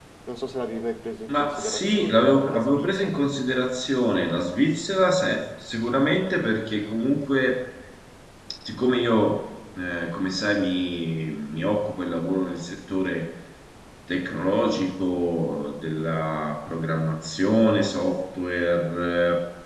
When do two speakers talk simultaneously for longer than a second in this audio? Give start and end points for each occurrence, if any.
1.3-3.2

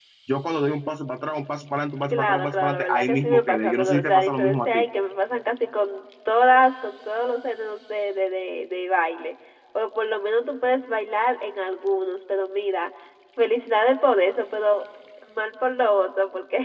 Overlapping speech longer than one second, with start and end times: 2.1-4.8

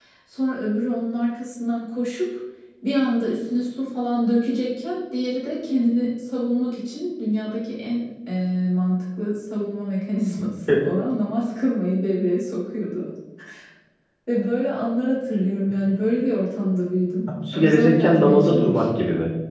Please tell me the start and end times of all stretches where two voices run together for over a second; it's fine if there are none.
17.5-18.8

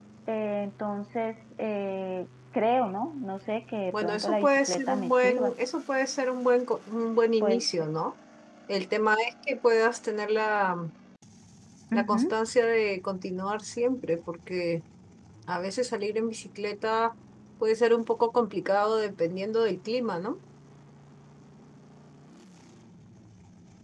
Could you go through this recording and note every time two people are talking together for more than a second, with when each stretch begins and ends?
3.9-5.5

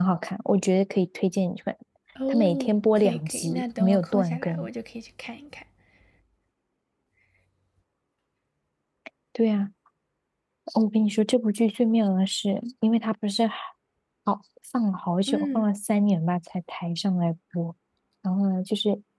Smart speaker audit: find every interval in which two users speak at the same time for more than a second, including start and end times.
2.3-4.7

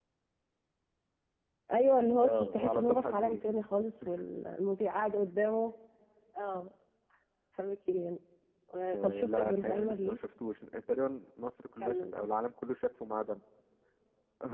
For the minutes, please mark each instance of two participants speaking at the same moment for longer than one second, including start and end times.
2.2-3.4, 8.9-10.2

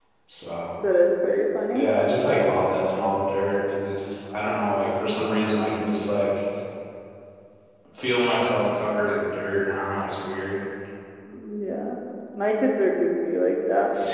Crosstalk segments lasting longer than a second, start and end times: none

